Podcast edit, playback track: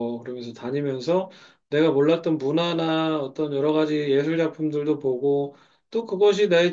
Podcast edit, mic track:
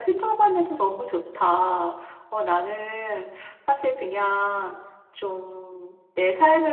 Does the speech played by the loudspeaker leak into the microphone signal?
No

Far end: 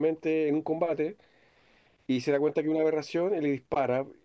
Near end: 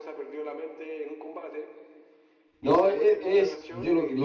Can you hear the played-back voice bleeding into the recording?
Yes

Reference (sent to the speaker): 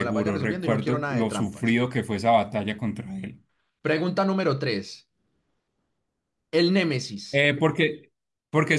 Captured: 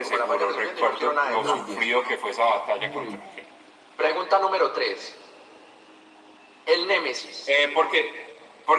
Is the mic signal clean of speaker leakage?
No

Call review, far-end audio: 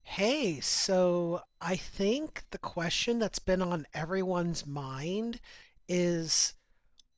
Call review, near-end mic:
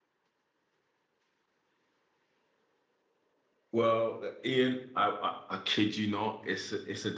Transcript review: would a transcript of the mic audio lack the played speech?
Yes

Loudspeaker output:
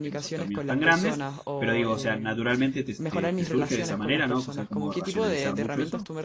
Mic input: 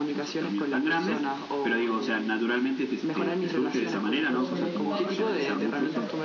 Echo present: Yes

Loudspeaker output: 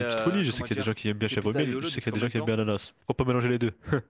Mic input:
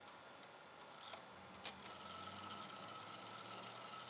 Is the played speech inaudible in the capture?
Yes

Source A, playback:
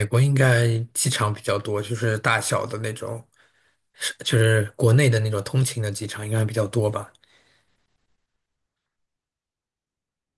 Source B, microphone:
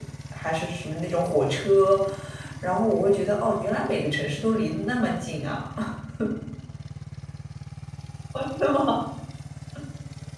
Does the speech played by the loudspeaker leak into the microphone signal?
No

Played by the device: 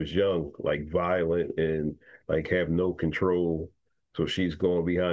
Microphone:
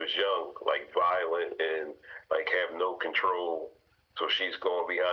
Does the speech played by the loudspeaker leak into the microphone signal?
Yes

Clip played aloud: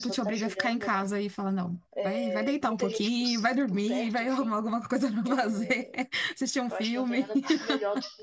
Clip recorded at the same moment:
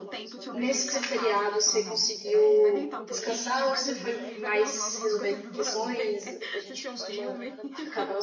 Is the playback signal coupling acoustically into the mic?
Yes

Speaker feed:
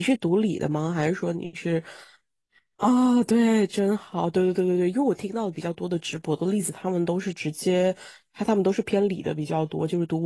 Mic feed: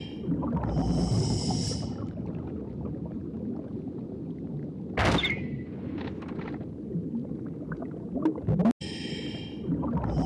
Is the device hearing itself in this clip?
No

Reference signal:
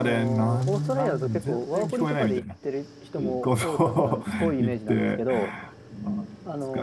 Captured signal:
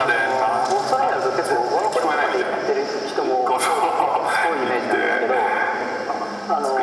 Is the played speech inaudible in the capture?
No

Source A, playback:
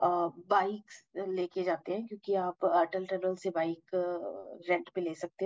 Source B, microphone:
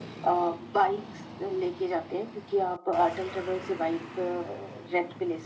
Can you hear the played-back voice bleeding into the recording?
Yes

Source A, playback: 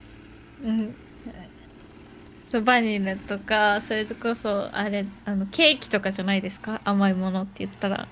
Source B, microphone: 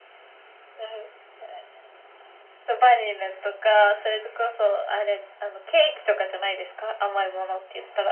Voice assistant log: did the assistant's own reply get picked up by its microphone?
Yes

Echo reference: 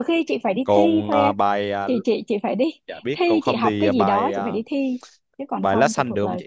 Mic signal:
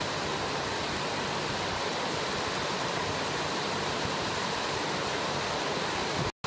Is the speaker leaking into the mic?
No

